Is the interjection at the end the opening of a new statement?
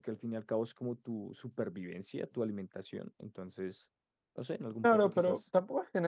Yes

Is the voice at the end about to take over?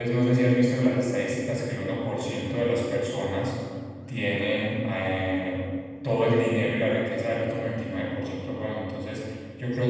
No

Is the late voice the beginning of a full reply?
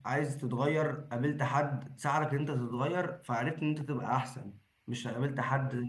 No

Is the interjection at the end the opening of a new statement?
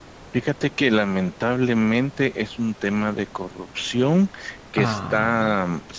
No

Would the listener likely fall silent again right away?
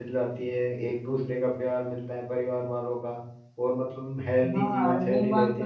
No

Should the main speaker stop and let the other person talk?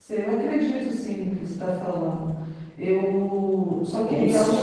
Yes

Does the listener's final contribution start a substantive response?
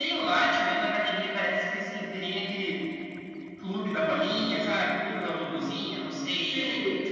No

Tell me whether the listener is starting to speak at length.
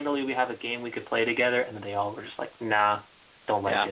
Yes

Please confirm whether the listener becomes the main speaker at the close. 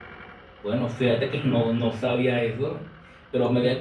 No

